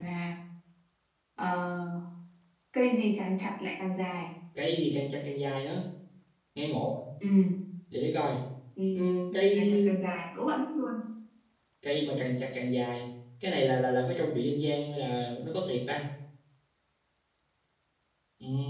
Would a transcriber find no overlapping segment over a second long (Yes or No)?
Yes